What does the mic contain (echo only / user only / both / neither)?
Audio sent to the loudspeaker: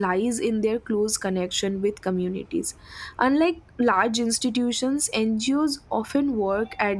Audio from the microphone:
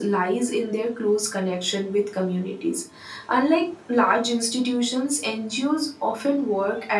echo only